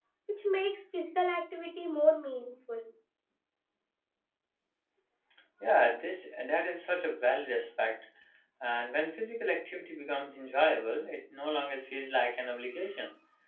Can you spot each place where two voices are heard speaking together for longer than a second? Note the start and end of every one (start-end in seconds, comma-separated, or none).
none